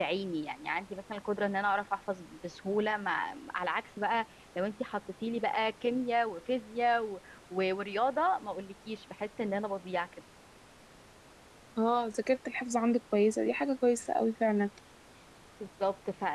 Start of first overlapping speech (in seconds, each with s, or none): none